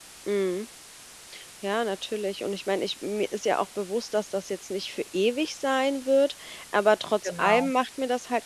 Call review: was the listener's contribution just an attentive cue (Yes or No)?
Yes